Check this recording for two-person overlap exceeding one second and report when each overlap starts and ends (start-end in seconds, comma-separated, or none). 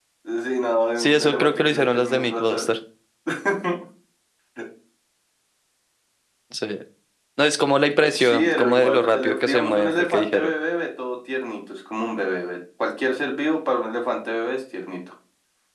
1.0-2.6, 8.2-10.5